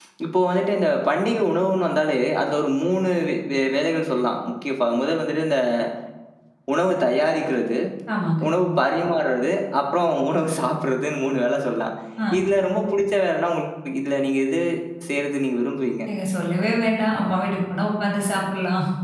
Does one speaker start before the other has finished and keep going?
No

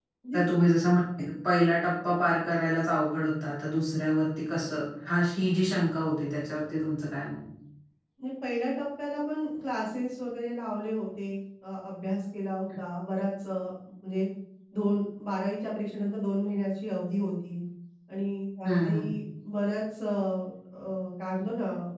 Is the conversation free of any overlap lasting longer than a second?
Yes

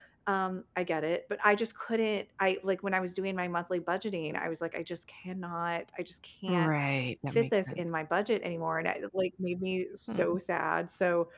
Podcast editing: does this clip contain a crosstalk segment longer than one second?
No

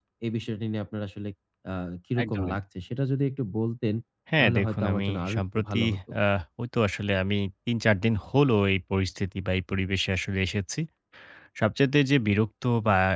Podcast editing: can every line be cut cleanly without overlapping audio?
No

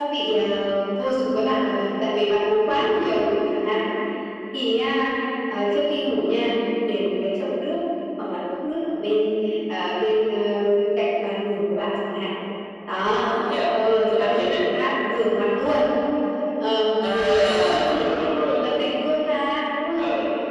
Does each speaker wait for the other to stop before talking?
No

